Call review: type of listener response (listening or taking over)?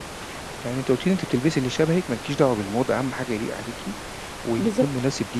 listening